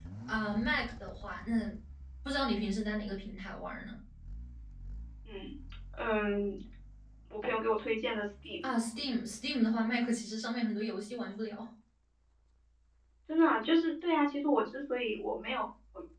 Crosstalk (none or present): none